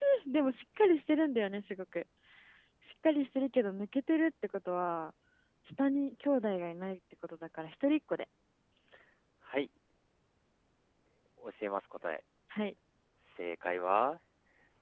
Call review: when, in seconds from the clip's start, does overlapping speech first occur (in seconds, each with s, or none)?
none